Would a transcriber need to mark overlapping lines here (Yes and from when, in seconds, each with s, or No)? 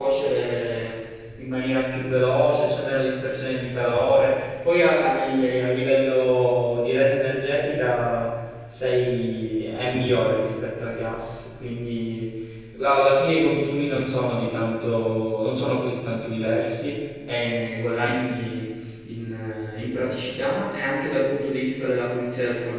No